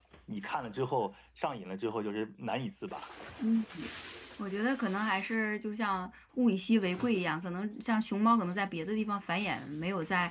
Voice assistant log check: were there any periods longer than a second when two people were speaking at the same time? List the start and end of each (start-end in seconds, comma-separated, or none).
none